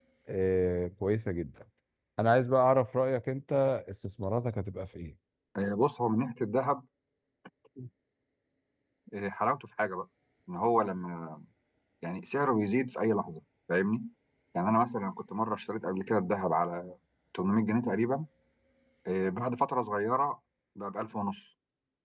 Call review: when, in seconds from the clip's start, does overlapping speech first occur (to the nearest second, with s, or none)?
none